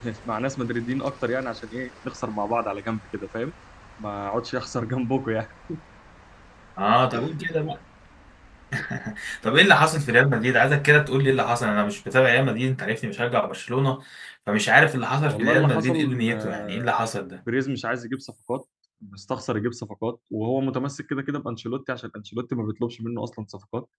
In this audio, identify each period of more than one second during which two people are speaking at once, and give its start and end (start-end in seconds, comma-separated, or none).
15.3-16.9